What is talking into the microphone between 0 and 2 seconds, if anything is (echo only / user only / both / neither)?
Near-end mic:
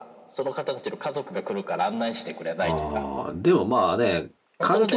echo only